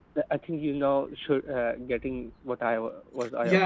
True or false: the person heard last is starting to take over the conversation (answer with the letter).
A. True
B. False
A